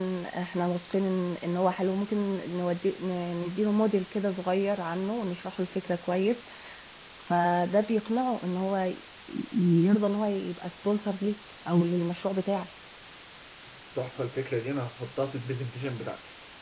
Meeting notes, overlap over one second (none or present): none